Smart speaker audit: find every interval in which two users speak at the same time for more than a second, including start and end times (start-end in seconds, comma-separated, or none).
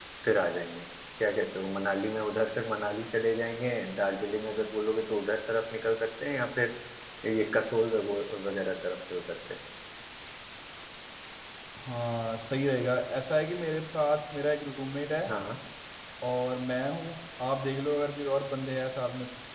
none